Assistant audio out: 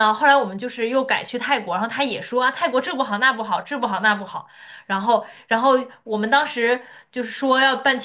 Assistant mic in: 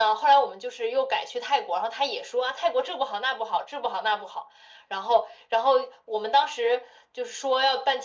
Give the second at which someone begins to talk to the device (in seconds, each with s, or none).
none